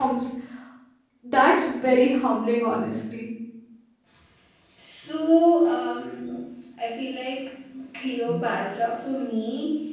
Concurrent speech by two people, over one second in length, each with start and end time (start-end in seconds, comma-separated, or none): none